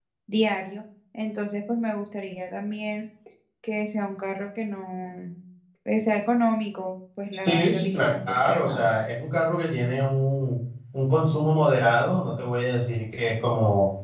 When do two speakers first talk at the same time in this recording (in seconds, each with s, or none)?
7.5 s